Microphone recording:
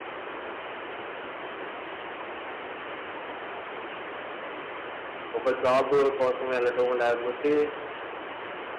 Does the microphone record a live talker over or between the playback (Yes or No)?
Yes